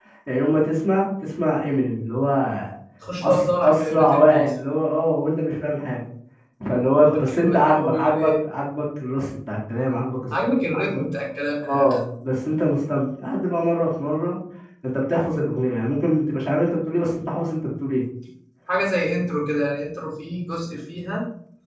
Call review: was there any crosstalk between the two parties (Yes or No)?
Yes